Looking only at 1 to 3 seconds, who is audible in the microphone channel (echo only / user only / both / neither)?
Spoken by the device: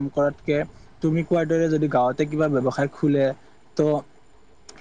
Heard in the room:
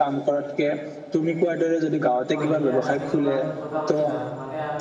both